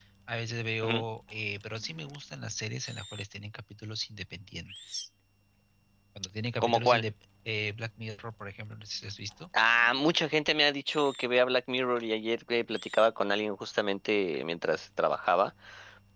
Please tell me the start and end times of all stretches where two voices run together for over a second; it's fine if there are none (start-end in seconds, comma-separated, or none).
none